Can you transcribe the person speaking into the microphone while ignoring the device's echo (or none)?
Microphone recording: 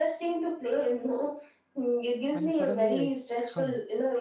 and suddenly i come